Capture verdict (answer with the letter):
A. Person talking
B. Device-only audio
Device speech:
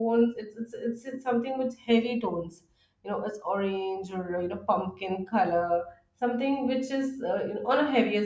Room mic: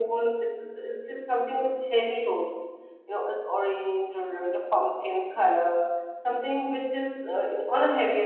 B